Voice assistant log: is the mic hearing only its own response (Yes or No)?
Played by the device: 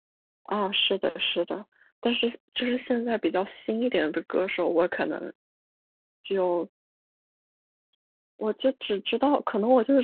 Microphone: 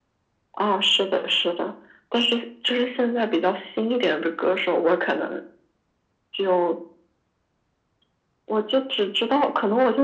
Yes